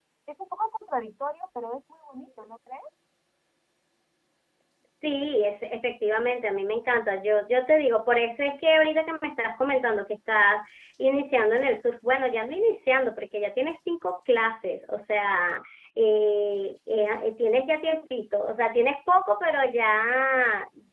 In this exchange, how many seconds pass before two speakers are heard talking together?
none

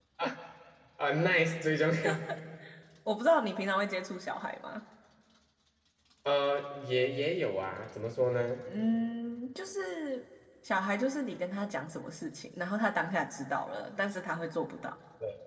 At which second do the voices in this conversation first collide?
none

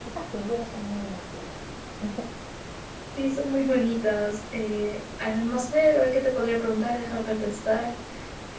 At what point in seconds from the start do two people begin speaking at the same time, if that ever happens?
none

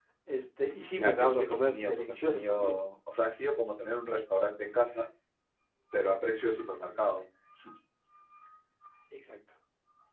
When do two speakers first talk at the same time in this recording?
0.9 s

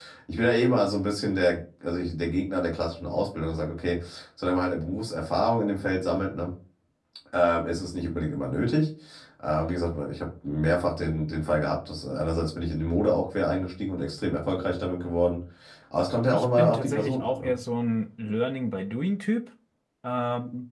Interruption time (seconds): 16.3 s

